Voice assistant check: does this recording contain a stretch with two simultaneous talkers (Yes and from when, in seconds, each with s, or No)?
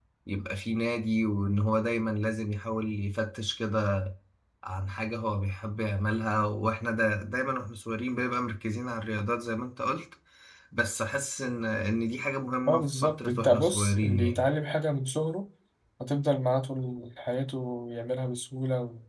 Yes, from 12.7 s